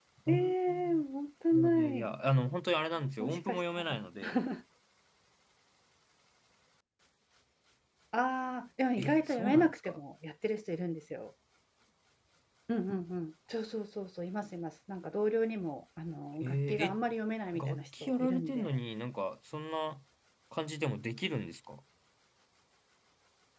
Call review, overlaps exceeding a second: present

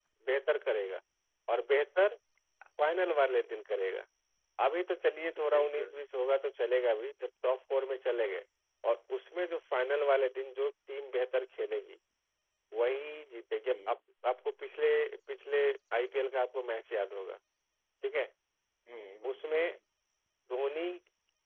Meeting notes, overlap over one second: none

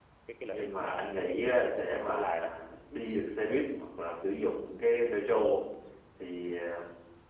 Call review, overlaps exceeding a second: present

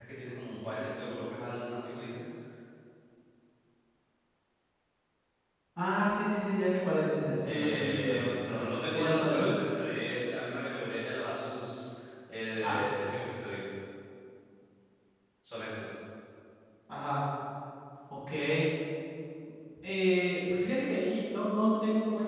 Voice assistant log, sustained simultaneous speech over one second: present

